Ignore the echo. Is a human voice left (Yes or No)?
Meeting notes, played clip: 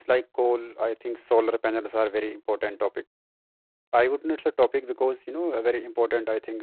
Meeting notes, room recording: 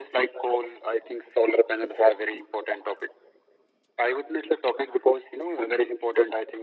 No